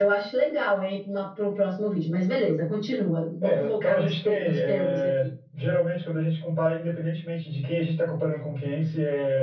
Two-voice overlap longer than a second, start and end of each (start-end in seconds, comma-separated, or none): 3.4-5.1